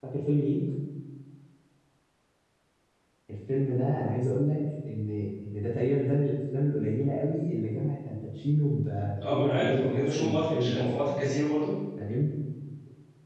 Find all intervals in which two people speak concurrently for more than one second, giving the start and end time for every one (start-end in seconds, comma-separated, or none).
9.3-11.1